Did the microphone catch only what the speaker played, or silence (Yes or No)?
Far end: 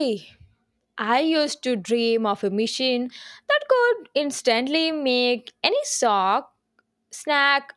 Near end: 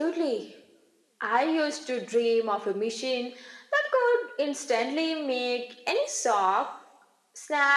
Yes